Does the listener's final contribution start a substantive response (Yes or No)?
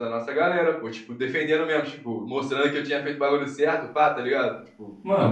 Yes